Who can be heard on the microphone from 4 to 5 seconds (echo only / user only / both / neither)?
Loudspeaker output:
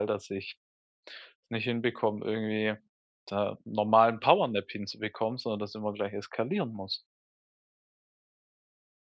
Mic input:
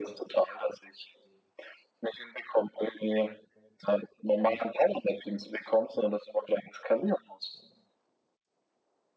echo only